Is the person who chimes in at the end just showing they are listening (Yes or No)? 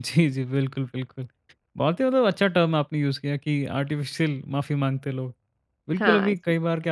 Yes